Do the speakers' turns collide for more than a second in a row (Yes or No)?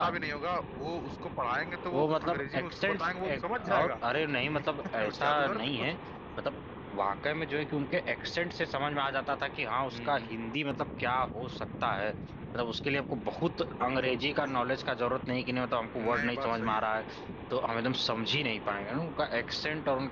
Yes